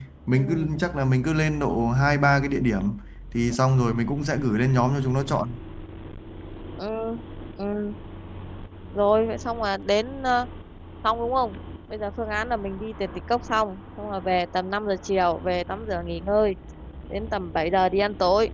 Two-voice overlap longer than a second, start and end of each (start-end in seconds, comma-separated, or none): none